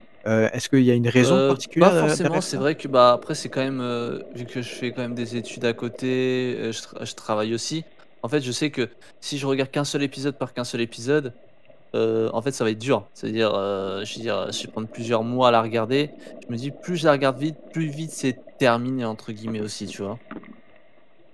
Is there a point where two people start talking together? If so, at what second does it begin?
1.2 s

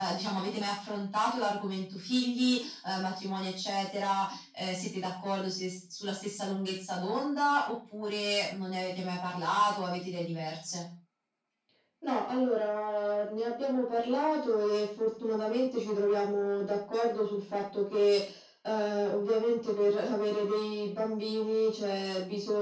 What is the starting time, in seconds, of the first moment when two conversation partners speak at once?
none

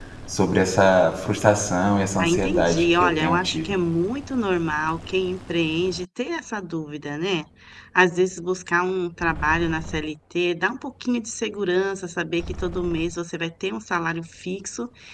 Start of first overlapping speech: 2.2 s

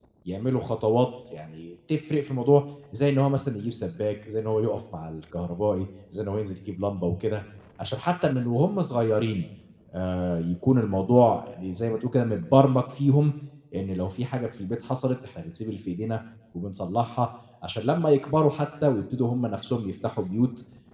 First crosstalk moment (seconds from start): none

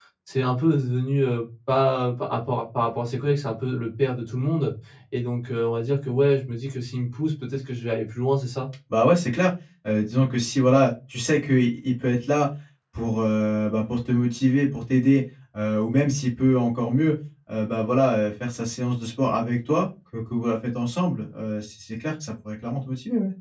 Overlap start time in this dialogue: none

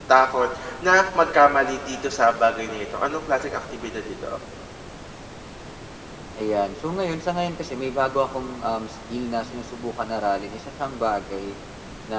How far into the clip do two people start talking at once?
none

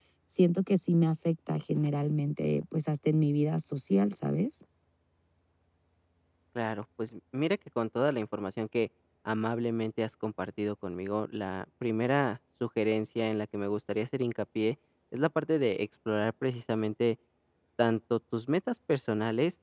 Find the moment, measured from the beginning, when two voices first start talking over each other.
none

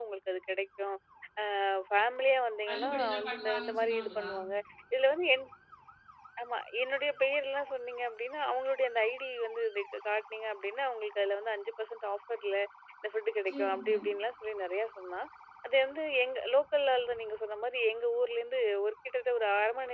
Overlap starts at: 2.7 s

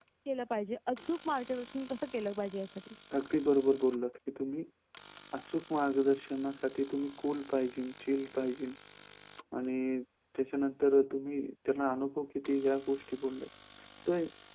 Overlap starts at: none

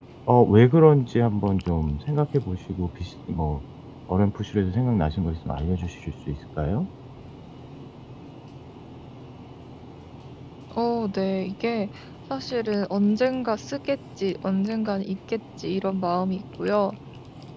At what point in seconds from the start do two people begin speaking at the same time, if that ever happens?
none

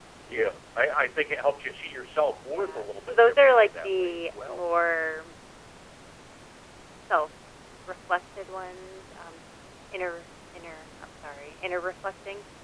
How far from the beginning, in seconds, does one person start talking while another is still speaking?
2.5 s

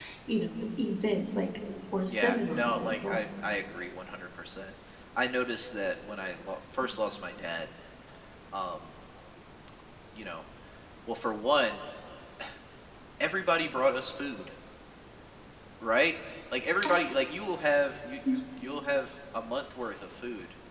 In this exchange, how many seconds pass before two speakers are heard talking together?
2.1 s

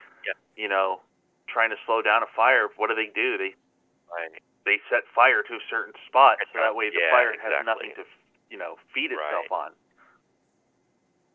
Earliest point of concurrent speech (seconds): 6.5 s

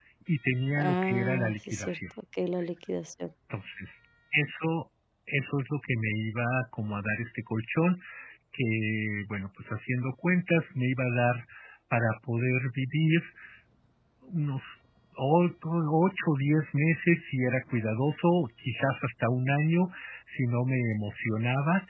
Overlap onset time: 0.8 s

